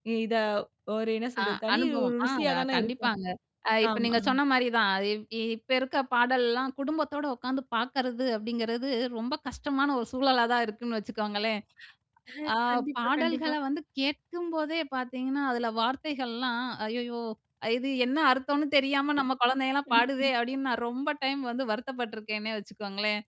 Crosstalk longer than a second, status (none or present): present